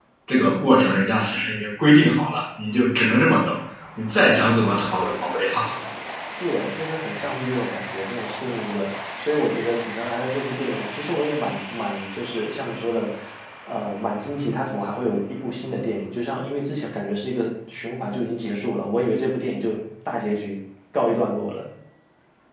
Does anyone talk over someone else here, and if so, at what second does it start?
none

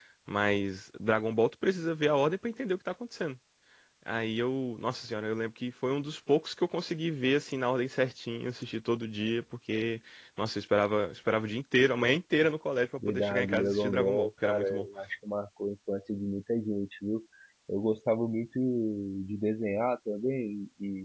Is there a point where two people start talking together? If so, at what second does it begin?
13.0 s

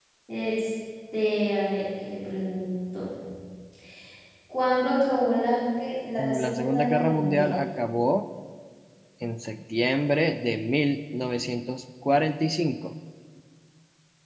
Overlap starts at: 6.2 s

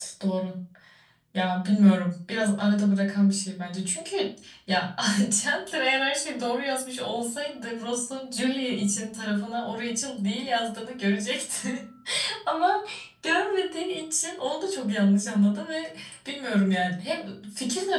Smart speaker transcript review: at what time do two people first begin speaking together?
none

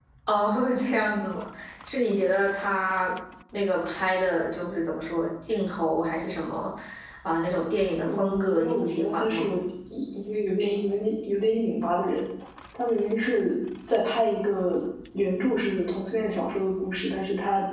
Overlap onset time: 8.1 s

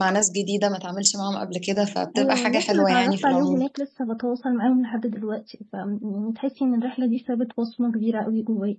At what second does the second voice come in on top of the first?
2.1 s

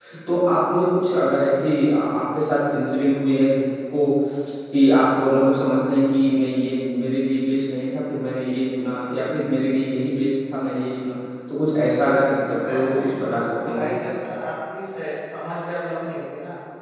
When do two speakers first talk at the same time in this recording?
12.0 s

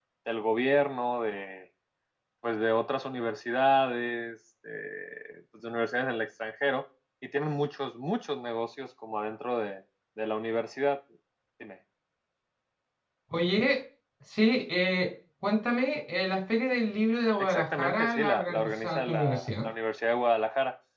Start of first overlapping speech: 17.4 s

